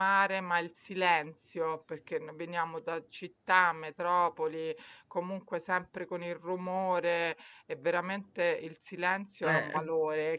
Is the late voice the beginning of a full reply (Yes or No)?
No